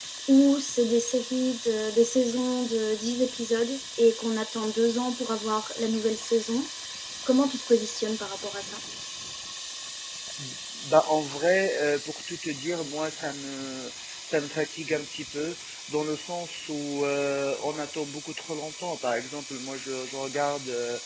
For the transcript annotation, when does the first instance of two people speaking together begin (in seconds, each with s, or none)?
none